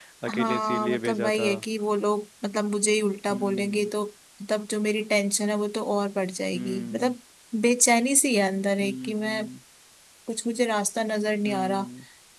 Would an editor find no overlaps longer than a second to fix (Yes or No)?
No